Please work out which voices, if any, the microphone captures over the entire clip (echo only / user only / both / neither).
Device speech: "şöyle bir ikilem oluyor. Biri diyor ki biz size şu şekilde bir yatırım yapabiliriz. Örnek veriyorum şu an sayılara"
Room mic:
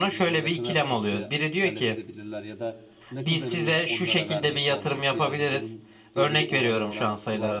both